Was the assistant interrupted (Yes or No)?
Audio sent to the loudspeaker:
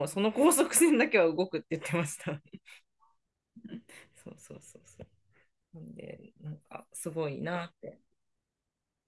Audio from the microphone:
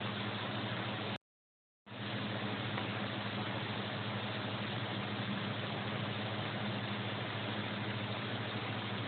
No